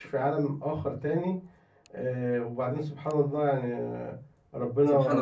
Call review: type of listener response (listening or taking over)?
listening